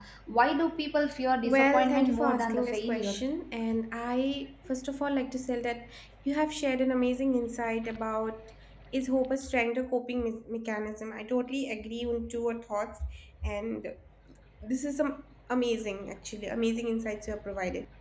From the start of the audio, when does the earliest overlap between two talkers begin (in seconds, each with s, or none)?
1.4 s